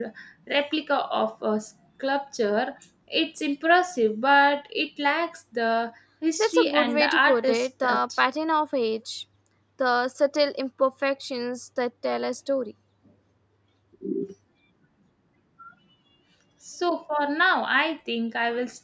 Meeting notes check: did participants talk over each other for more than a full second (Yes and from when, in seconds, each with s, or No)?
Yes, from 6.4 s